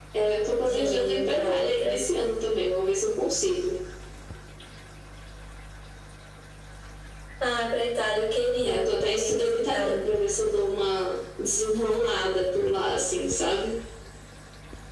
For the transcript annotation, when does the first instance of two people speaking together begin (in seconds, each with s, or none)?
0.6 s